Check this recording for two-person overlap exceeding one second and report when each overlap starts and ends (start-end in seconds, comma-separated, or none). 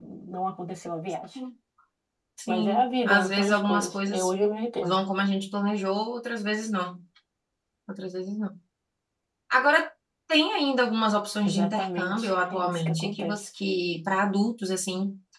2.5-4.3, 11.4-13.3